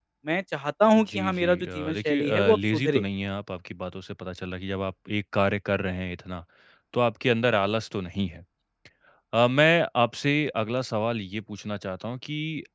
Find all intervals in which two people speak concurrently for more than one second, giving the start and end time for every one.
1.1-3.0

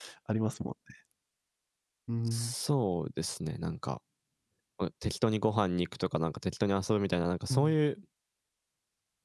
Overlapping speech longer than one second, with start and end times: none

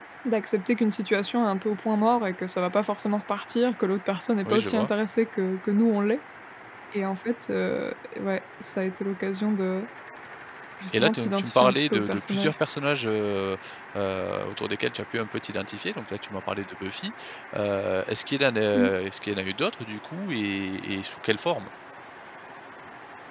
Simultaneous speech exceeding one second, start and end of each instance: 10.9-12.5

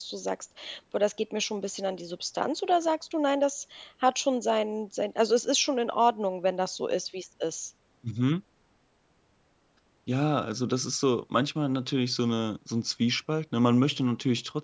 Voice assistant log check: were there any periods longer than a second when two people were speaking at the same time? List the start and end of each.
none

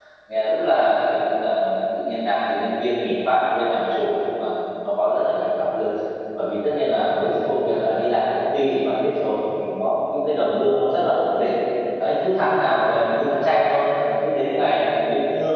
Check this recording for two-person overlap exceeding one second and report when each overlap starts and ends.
none

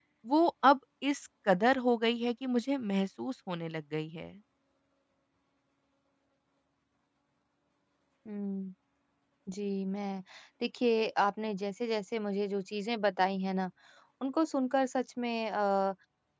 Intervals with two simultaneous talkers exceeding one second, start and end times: none

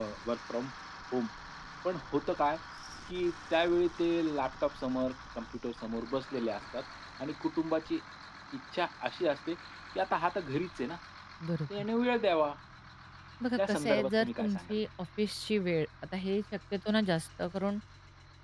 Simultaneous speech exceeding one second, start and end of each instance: 13.6-14.8

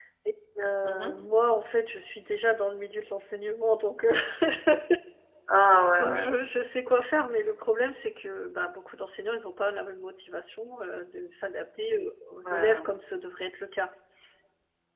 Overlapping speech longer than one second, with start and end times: none

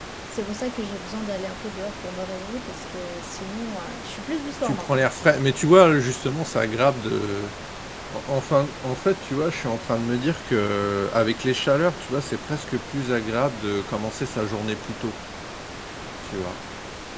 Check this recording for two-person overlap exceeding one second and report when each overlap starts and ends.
none

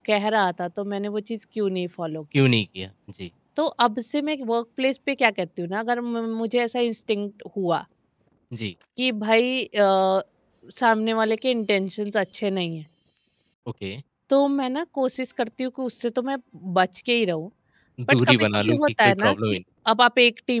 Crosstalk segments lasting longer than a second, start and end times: 18.1-19.6

